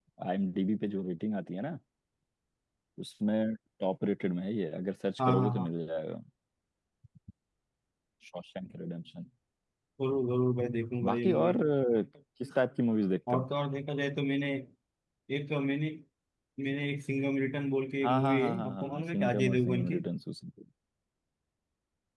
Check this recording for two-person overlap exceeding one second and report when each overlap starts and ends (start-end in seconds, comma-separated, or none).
18.0-20.0